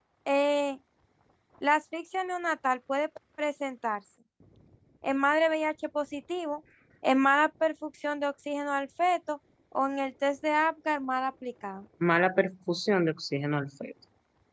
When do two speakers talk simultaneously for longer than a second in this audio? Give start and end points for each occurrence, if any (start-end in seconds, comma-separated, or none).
none